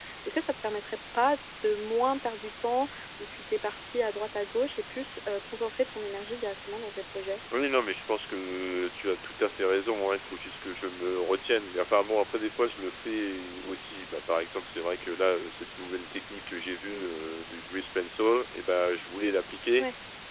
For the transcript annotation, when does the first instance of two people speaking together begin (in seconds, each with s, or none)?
none